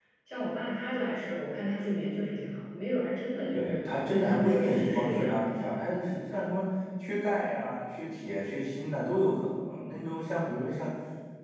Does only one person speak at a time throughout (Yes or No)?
No